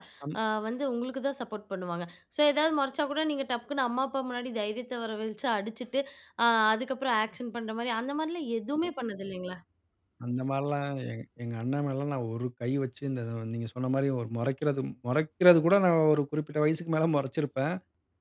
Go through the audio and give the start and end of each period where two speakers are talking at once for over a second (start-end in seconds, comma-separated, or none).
none